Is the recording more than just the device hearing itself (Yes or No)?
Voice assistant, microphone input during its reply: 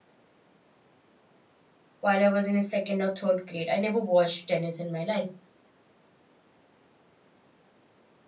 Yes